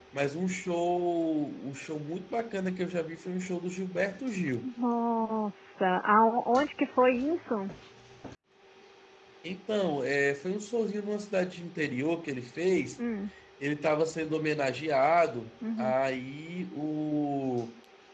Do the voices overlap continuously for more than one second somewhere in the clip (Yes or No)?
No